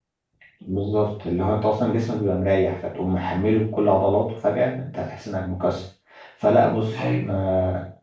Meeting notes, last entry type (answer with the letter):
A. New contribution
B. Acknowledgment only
B